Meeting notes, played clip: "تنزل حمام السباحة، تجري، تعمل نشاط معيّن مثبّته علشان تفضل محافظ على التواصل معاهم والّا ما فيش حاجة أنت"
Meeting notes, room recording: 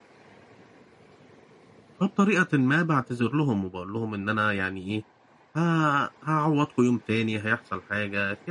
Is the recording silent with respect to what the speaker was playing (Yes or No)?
Yes